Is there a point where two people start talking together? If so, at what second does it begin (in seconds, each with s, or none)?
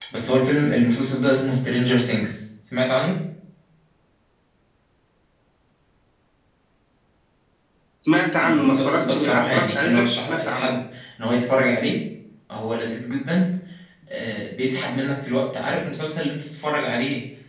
8.4 s